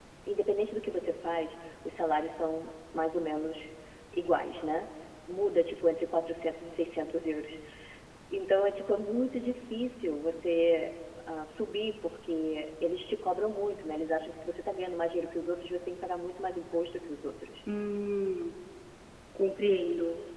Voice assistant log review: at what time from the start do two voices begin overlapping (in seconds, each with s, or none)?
none